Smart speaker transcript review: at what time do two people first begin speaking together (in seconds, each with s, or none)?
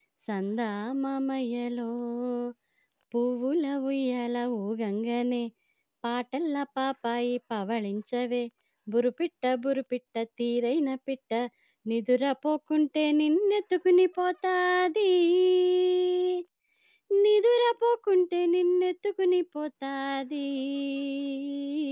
none